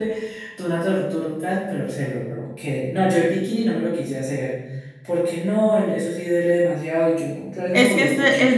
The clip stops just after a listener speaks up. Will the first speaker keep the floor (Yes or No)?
No